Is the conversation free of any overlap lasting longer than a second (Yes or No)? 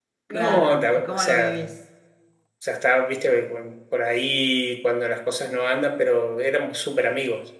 No